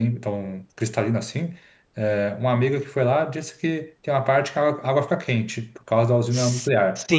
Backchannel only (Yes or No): No